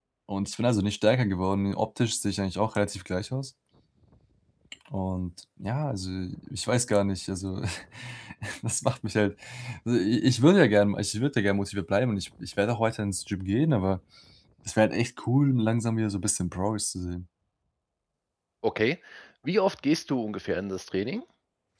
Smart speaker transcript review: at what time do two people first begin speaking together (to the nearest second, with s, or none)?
none